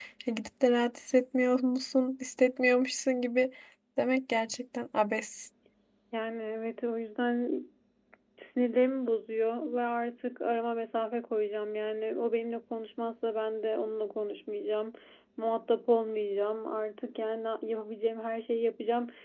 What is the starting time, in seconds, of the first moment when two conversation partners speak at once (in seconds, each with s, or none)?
none